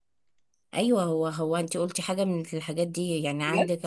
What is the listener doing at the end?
listening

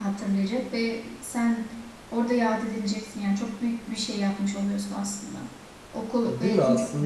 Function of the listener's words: taking over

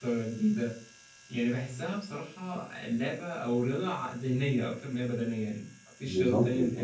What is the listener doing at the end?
listening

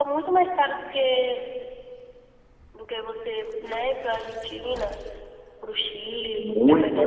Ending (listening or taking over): taking over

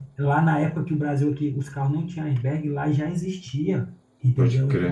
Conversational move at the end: listening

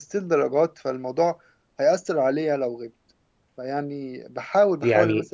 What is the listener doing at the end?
listening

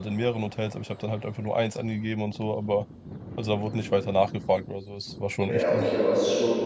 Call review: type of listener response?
taking over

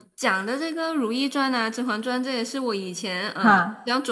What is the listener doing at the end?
listening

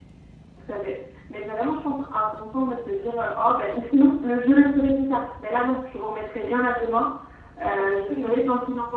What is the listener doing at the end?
listening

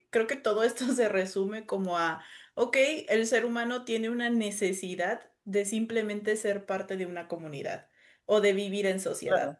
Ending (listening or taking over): taking over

